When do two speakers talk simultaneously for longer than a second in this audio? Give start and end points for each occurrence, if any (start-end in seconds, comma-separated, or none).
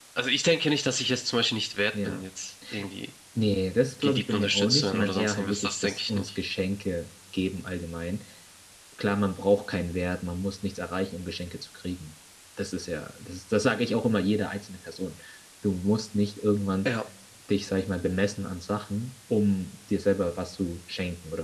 4.0-6.3